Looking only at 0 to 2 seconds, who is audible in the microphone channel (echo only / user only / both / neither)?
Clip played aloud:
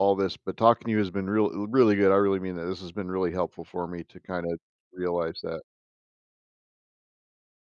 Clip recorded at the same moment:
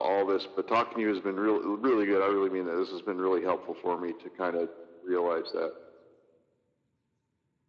echo only